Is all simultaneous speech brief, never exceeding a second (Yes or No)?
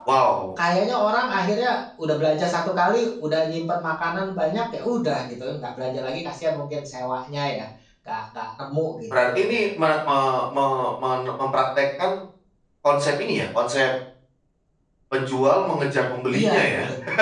Yes